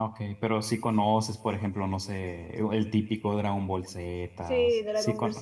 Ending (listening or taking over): taking over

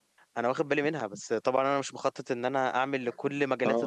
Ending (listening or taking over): listening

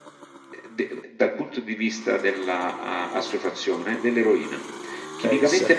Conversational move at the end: listening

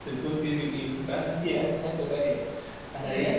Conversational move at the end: listening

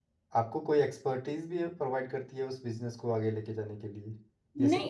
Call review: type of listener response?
taking over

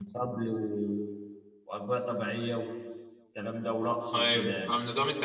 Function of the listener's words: taking over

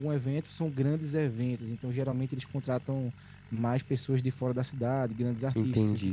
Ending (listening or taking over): taking over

